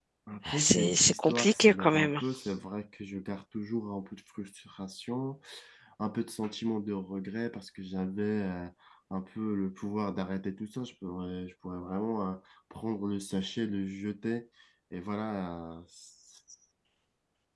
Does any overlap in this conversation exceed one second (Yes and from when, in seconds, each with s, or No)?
Yes, from 0.6 s